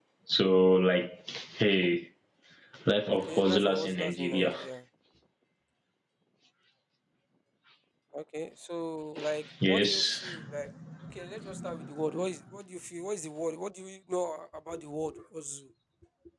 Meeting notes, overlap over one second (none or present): present